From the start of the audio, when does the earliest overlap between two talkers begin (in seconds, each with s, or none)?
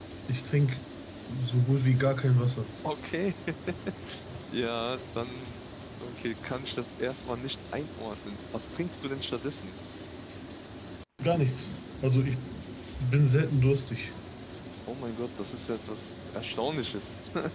none